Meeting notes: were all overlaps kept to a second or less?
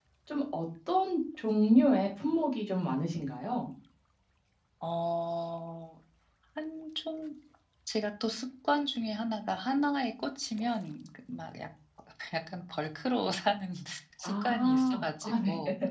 No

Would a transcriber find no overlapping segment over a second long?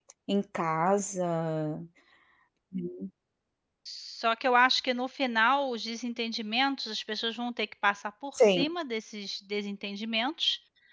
Yes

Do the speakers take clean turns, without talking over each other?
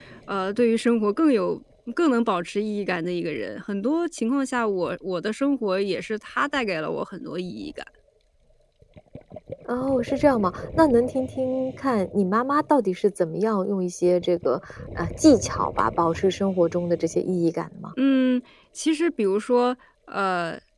Yes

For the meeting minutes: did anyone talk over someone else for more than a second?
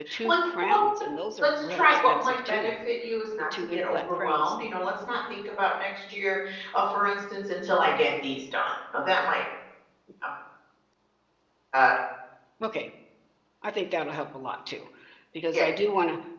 Yes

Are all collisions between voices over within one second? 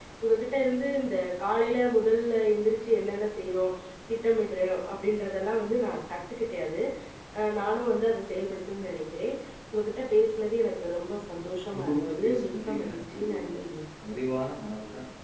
No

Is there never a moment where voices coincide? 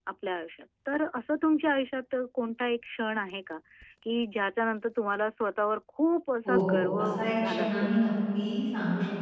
No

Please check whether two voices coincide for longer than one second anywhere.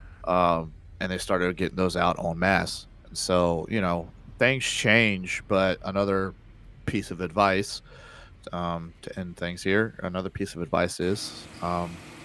No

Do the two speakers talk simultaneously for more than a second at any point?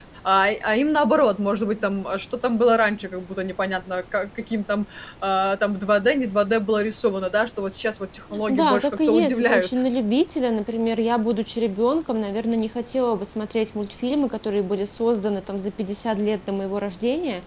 Yes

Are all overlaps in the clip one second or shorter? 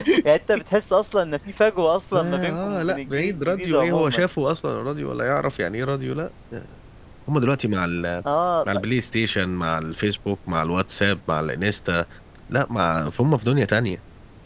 No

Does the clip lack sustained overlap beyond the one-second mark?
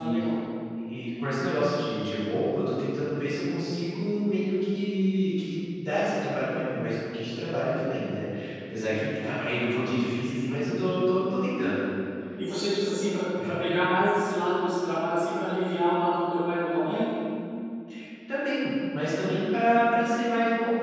Yes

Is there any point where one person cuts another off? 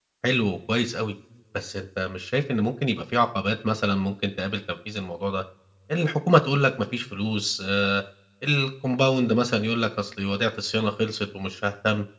No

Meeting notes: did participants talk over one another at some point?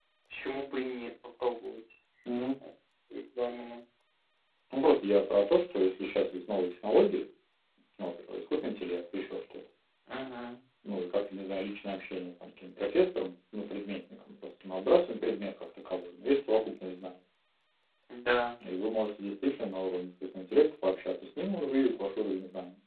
No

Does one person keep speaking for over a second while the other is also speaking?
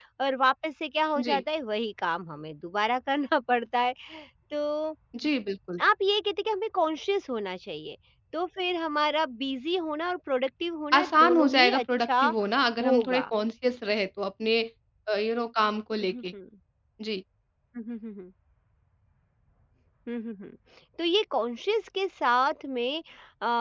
Yes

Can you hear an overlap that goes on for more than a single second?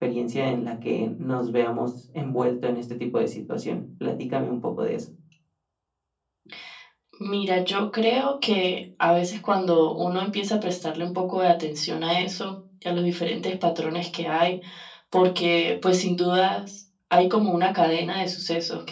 No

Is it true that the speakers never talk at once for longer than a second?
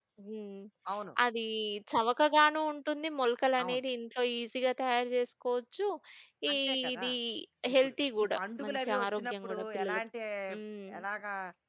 No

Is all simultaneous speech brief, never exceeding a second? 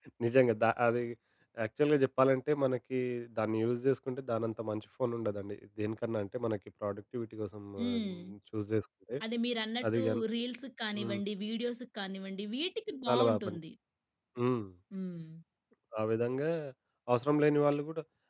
Yes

